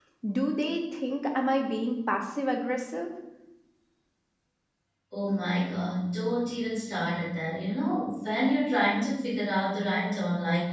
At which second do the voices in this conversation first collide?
none

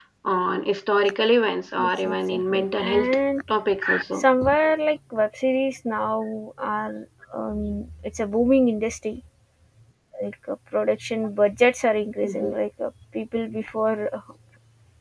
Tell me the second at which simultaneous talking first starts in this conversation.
1.8 s

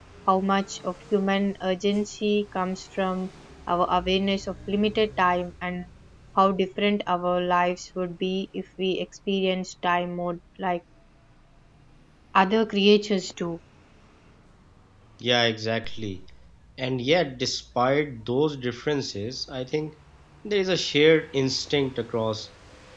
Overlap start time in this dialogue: none

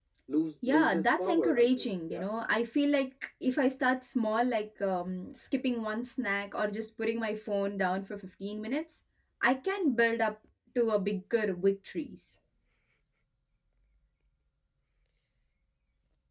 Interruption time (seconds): 0.7 s

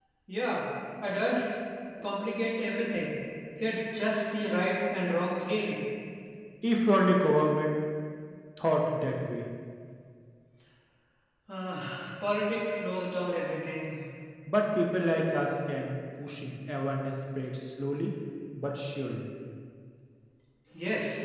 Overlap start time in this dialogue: none

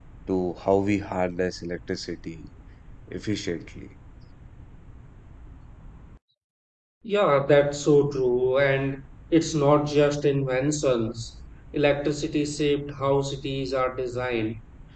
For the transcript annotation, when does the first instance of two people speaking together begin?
none

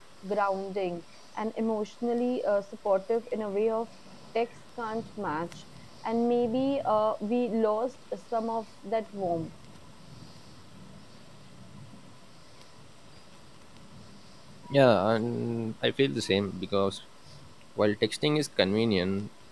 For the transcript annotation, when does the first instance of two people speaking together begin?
none

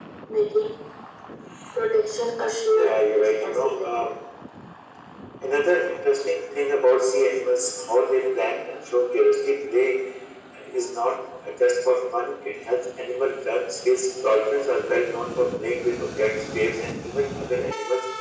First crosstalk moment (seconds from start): 2.7 s

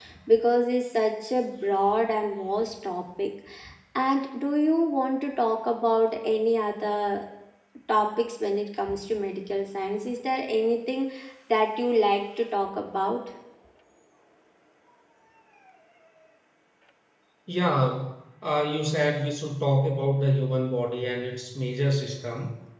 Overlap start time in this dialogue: none

